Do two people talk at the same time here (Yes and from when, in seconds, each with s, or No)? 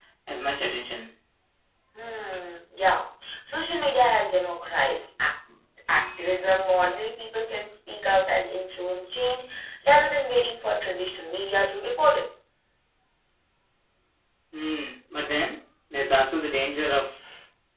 No